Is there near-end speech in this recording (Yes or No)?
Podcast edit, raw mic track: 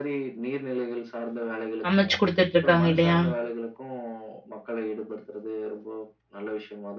Yes